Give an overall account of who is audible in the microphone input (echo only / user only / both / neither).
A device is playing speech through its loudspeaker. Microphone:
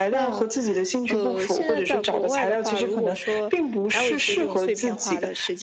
both